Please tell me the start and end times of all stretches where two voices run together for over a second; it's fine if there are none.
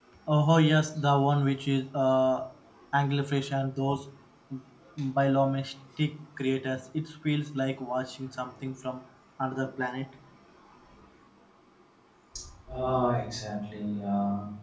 none

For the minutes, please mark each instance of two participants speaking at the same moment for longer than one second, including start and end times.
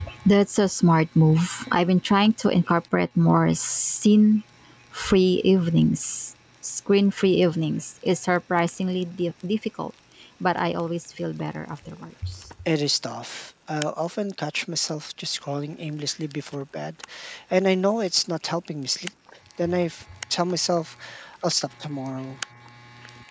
none

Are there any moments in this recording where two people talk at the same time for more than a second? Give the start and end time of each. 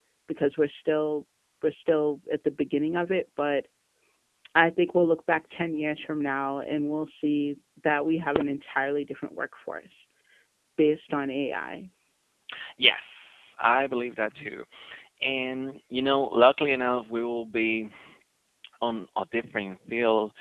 none

